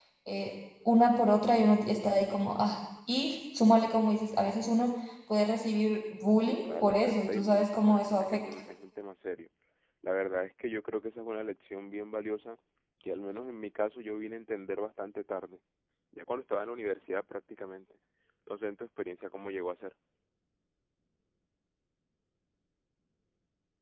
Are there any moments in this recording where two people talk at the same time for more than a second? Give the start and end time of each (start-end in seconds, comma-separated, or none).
6.5-8.4